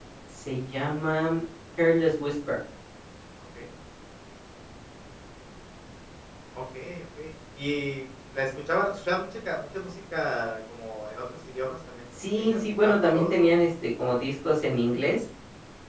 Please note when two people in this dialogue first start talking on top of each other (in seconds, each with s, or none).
12.1 s